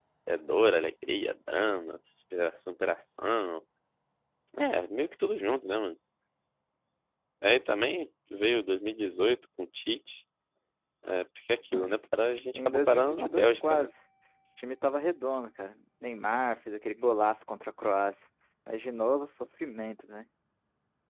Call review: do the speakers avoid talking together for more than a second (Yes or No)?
No